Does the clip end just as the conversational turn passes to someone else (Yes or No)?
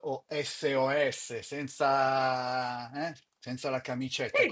Yes